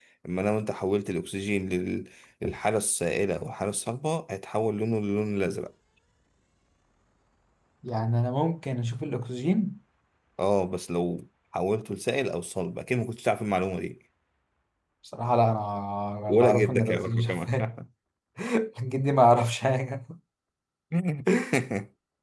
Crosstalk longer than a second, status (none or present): present